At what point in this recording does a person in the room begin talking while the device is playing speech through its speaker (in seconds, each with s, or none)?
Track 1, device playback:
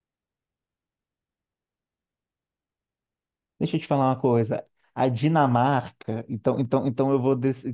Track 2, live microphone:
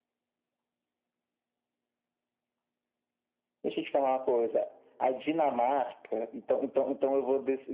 none